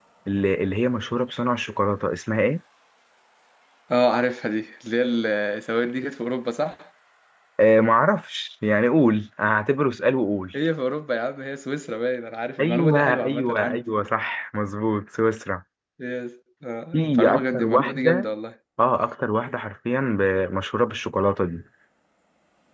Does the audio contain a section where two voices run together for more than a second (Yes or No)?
Yes